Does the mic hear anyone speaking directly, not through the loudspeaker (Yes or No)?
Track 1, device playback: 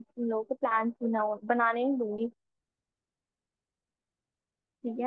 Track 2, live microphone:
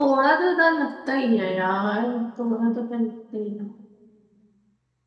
Yes